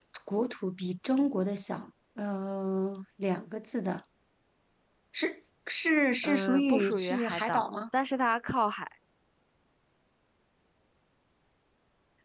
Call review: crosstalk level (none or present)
present